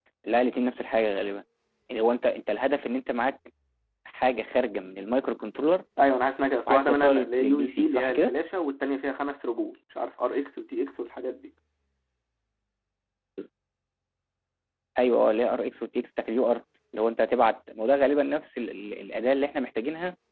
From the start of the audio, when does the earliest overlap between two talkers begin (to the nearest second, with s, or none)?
7 s